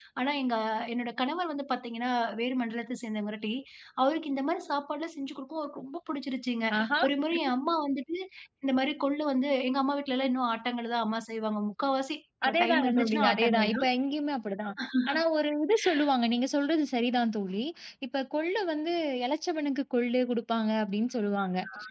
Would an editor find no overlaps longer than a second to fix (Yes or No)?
No